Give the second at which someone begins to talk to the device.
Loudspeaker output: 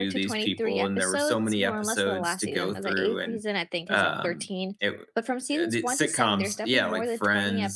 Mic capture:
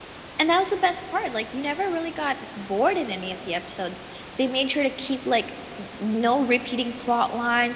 0.4 s

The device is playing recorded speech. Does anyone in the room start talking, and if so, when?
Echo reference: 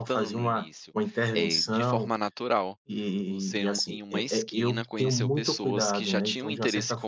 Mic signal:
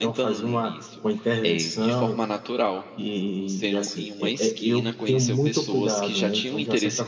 none

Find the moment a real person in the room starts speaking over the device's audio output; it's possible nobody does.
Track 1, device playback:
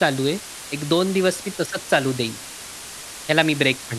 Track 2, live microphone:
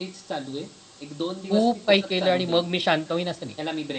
1.5 s

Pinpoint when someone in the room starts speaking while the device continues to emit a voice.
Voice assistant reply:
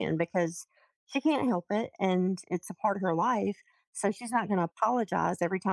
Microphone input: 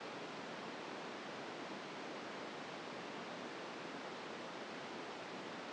none

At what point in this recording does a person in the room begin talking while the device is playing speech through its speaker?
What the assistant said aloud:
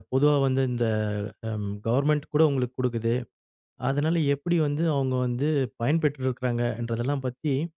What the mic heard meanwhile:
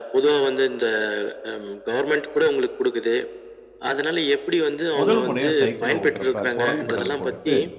5.0 s

